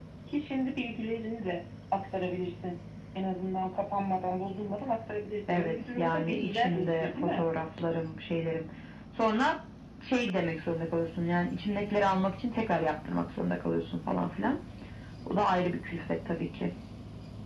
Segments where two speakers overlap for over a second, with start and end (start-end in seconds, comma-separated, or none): 5.5-7.5